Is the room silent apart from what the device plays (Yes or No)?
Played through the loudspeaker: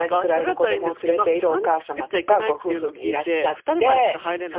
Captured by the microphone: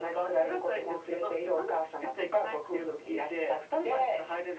Yes